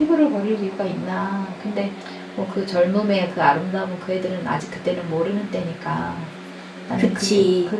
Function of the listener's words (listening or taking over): listening